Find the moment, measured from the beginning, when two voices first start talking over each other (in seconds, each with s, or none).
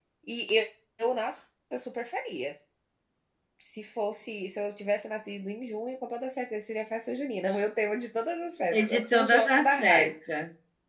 8.7 s